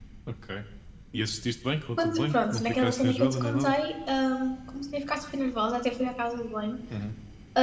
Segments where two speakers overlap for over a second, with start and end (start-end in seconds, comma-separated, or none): 2.0-3.7